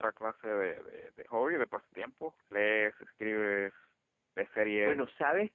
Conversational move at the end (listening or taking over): taking over